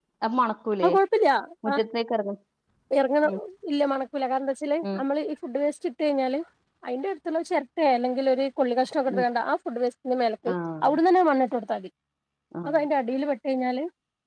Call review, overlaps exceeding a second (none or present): none